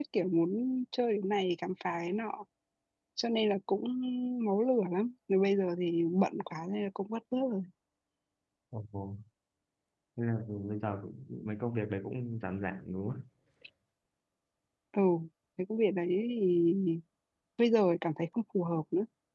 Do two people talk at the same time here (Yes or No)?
No